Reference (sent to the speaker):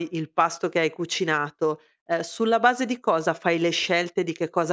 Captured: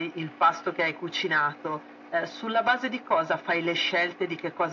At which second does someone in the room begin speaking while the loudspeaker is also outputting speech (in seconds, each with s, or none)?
none